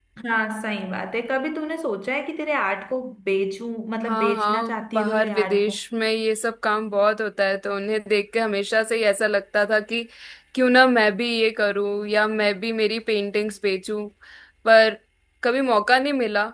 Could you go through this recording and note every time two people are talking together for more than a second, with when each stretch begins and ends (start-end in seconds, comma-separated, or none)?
4.0-5.7